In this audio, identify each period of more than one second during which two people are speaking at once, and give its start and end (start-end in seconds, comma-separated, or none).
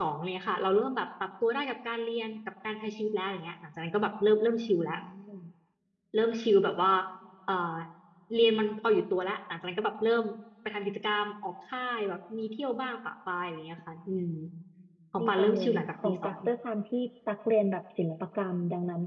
15.2-16.4